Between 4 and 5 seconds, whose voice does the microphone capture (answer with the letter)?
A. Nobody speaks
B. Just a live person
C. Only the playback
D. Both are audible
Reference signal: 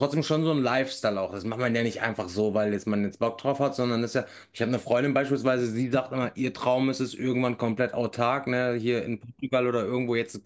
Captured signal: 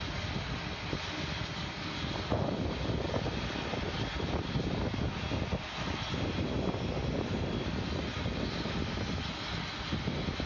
A